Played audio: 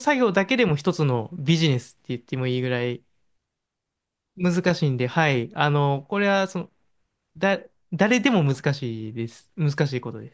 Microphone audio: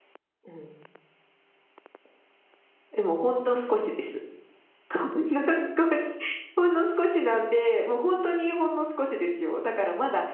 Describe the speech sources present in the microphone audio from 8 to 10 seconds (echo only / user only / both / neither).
user only